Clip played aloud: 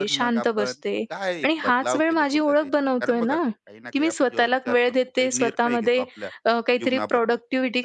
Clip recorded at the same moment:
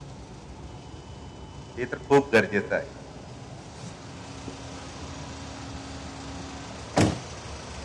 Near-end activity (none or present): present